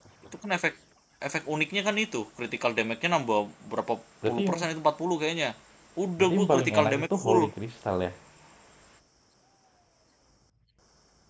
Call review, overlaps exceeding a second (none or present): present